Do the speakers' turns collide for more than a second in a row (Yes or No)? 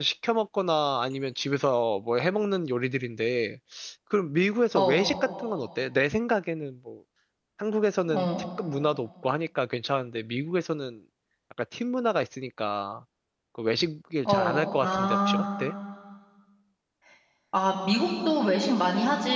Yes